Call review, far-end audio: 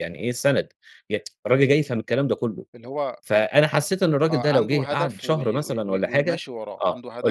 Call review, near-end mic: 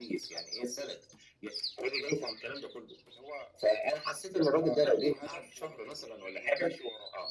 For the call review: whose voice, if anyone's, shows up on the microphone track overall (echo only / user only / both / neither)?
echo only